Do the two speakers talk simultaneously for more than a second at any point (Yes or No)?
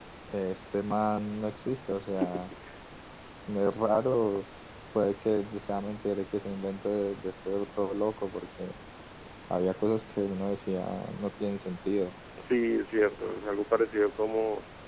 No